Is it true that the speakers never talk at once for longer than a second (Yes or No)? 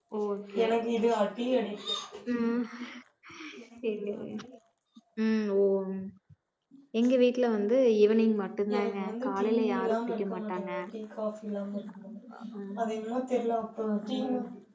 No